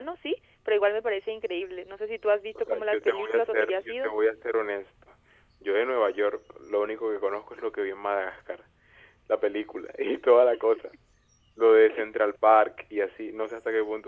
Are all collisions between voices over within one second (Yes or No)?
No